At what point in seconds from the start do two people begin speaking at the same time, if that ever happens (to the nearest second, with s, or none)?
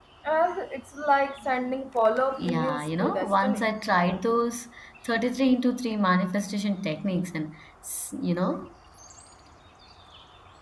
2 s